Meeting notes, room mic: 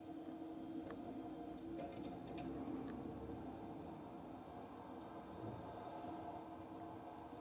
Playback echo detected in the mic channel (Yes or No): No